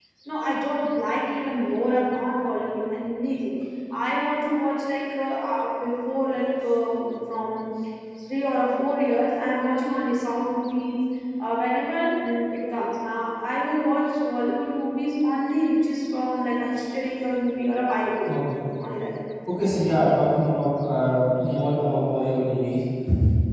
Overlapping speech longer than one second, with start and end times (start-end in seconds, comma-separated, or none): none